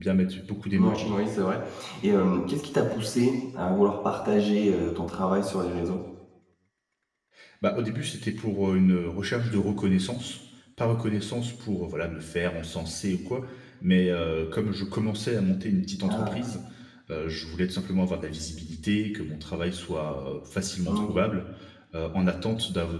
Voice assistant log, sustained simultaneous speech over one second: none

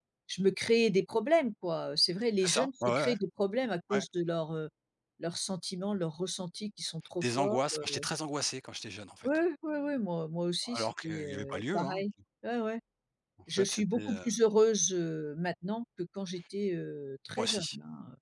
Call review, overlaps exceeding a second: present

